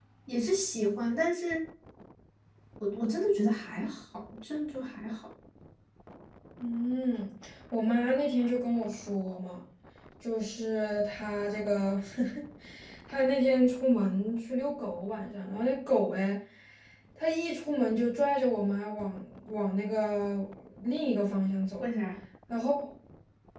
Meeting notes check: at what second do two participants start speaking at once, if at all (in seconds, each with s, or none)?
none